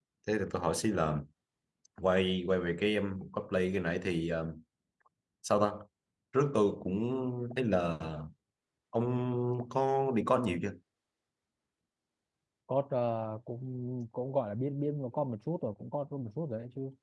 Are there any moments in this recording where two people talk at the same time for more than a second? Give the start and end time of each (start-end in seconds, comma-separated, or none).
none